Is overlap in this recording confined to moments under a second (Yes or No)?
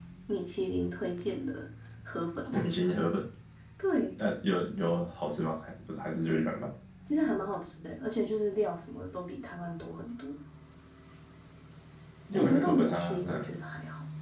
No